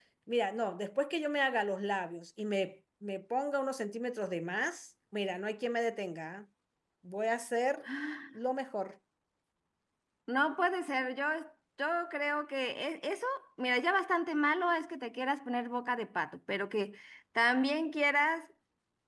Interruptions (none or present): none